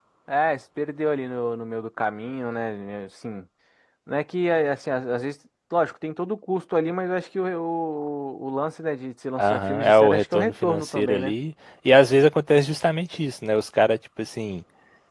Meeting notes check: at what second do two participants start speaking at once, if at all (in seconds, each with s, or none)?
9.4 s